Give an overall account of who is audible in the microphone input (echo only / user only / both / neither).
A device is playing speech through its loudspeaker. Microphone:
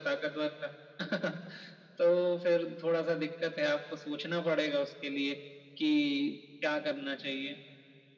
echo only